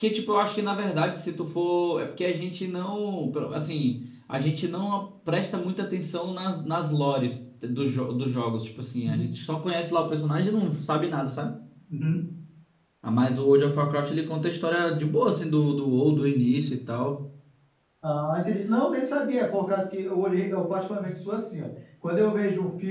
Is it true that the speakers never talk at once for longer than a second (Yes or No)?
Yes